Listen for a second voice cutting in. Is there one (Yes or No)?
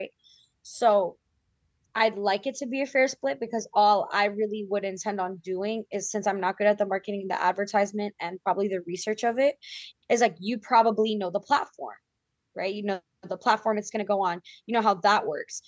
No